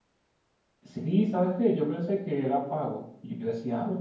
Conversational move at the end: listening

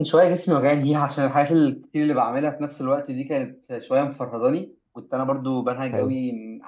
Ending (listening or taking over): listening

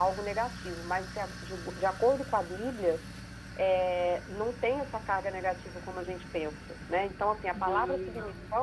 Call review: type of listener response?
listening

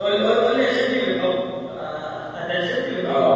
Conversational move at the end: taking over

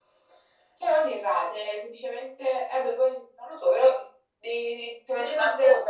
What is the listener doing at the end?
taking over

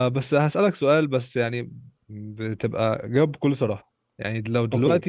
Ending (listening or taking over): listening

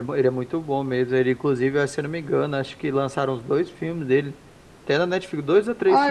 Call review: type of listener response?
taking over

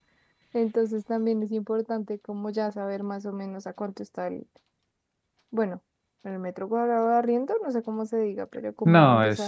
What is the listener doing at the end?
taking over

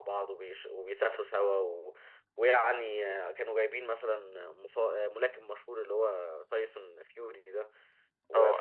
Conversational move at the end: listening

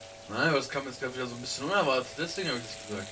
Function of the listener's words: taking over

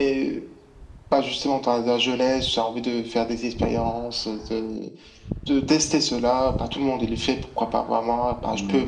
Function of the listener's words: listening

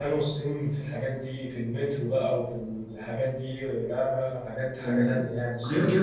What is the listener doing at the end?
taking over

